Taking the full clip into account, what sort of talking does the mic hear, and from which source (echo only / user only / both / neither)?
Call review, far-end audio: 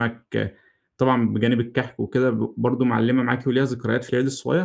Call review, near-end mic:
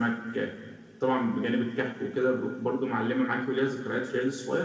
echo only